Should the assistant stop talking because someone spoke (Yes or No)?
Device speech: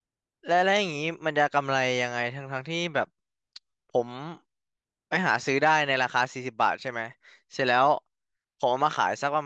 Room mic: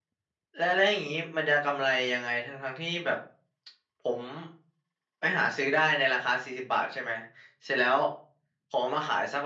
No